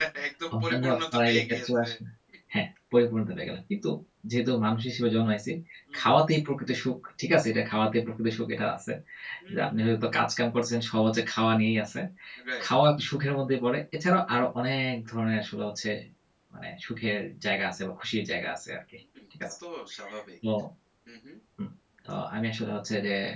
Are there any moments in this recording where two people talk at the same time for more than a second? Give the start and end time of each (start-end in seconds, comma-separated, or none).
0.6-1.9